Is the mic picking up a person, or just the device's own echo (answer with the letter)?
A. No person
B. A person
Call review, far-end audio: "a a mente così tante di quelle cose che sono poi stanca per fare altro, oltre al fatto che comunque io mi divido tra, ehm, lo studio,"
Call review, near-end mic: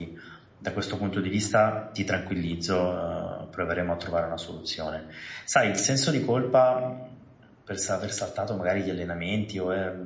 B